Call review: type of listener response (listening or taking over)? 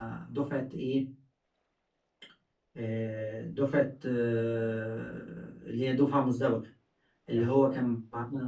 listening